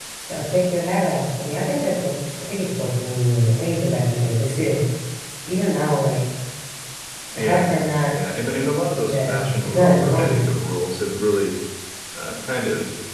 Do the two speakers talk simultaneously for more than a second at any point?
Yes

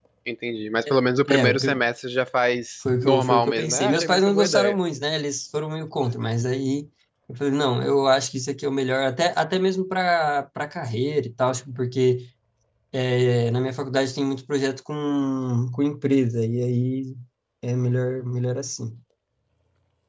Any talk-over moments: Yes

